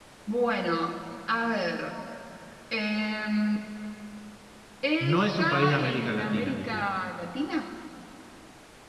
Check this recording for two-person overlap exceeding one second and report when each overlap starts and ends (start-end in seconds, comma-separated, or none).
5.0-6.8